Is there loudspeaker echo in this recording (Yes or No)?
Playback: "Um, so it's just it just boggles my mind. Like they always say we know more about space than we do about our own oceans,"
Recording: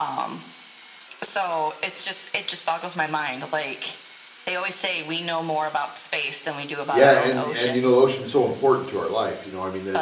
Yes